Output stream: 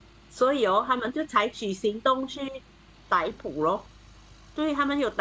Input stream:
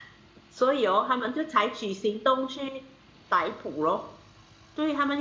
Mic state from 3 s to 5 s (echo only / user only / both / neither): echo only